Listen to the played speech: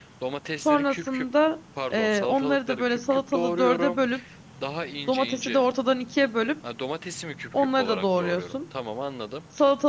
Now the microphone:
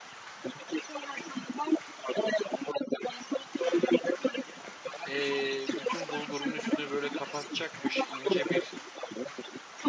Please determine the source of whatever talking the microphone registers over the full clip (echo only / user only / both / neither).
both